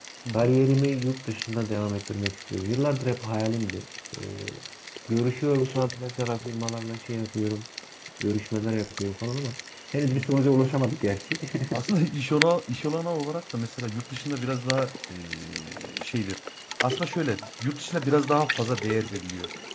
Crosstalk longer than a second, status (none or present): none